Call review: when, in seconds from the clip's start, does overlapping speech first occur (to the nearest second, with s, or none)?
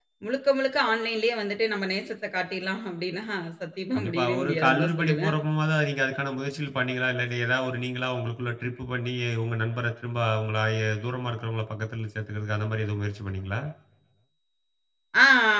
4 s